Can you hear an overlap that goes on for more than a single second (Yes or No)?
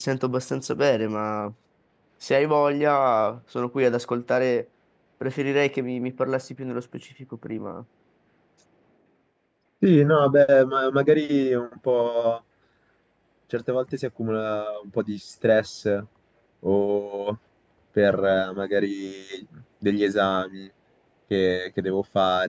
No